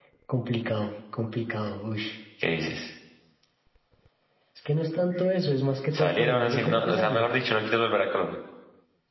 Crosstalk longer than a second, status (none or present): present